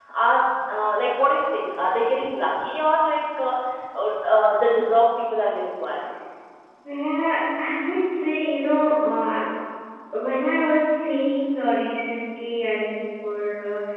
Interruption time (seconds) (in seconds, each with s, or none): none